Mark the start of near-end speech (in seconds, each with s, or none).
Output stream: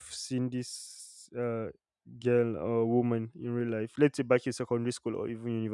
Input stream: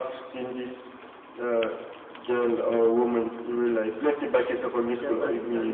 4.8 s